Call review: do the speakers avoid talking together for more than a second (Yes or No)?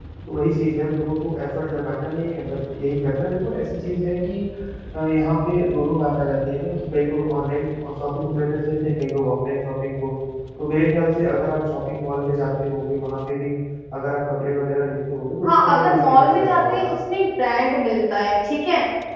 No